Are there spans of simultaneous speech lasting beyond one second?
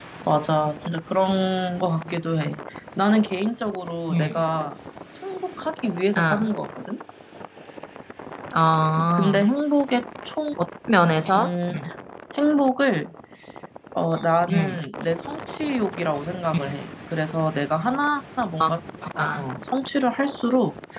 No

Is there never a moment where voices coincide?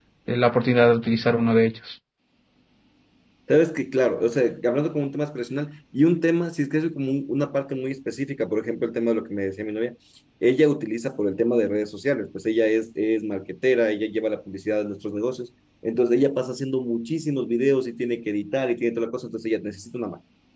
Yes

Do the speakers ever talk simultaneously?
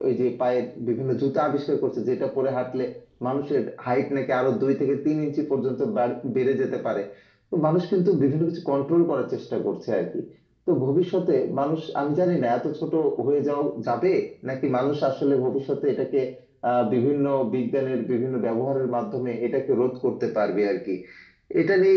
No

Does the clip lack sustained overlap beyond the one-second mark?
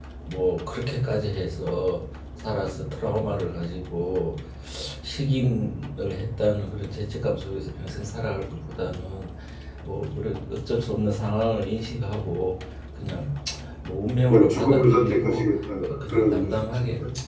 No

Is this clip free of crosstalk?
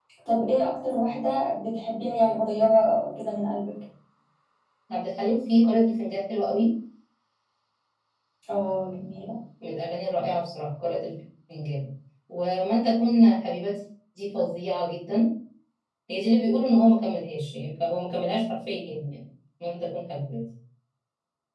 Yes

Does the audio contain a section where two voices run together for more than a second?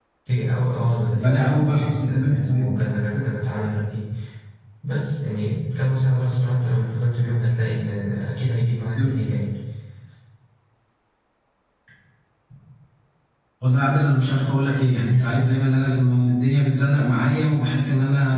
Yes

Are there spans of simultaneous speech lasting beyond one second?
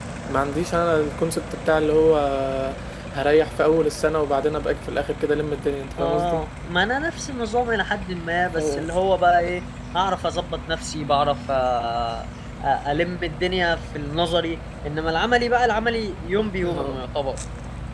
No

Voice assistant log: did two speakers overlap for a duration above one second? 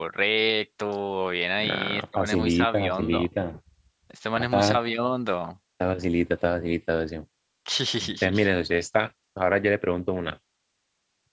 Yes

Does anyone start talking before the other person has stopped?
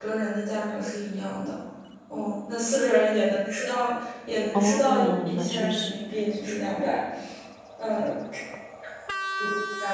Yes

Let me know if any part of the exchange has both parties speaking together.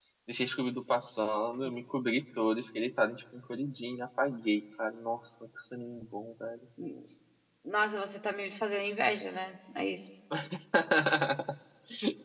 No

